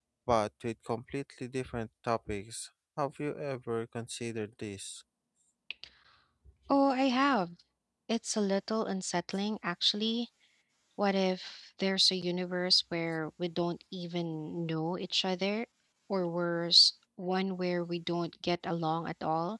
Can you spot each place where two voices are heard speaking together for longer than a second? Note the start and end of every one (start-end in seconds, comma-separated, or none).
none